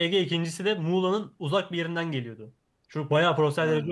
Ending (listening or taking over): listening